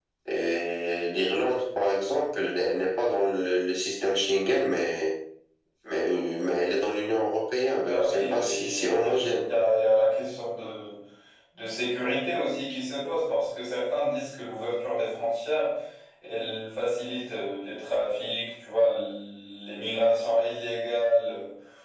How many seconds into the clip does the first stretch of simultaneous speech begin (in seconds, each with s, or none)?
7.8 s